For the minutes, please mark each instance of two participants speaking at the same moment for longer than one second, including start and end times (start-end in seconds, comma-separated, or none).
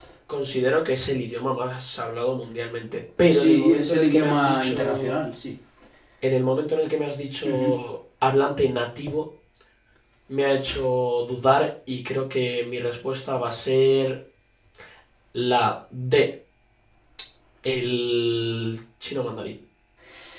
3.3-5.2